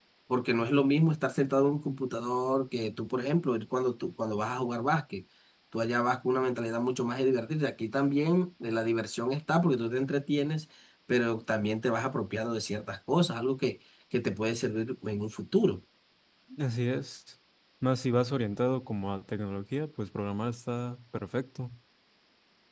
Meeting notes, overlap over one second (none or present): none